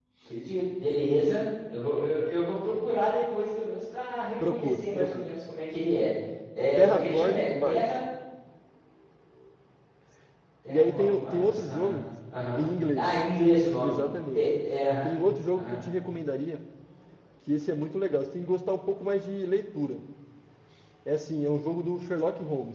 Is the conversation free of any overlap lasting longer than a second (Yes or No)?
No